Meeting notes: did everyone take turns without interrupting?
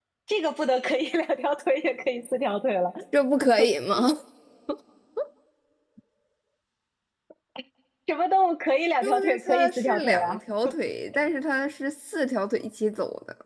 No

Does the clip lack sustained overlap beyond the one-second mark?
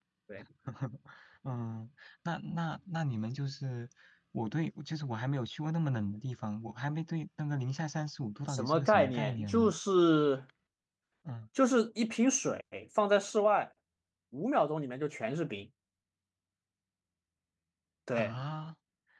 No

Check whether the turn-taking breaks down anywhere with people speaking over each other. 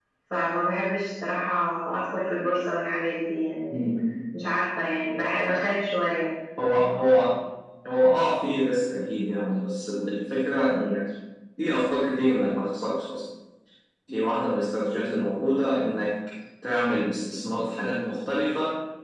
No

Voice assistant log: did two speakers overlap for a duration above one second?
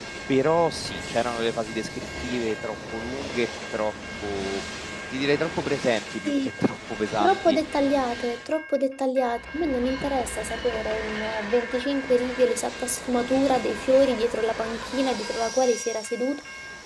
No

